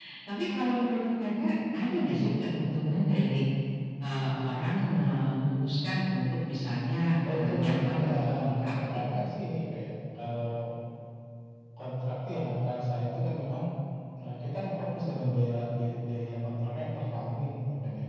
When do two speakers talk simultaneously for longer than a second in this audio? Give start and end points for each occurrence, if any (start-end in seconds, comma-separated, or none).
7.3-9.1